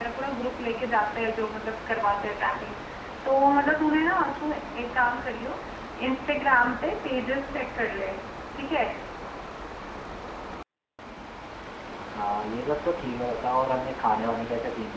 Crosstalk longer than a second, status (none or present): none